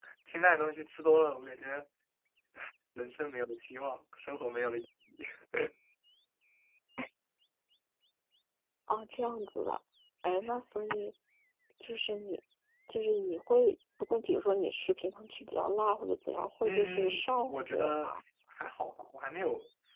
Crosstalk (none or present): present